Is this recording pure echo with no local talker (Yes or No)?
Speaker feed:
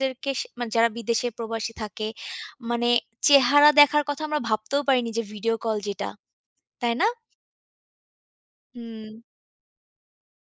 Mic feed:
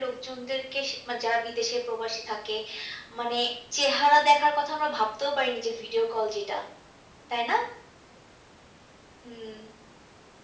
Yes